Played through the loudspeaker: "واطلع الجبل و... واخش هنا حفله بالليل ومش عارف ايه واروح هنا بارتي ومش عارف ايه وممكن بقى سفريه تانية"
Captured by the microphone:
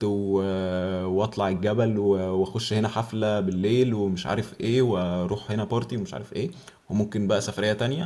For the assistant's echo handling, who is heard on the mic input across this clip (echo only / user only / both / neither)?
echo only